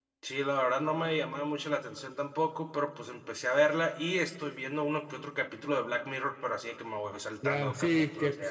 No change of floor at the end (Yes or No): No